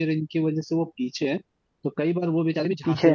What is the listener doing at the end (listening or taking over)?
listening